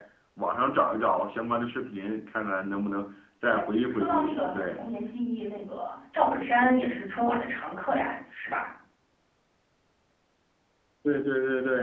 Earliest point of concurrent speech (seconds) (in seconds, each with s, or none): 3.5 s